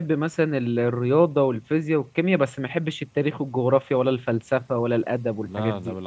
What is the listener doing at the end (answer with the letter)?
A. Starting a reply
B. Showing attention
A